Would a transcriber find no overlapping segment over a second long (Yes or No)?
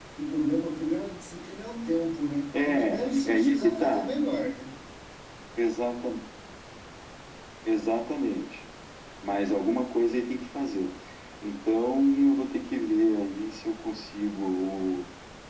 No